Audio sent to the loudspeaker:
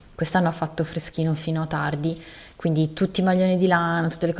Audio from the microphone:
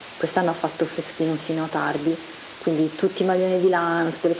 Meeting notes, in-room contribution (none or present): none